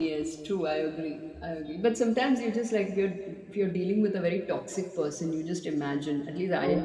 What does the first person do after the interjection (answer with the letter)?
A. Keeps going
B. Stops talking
A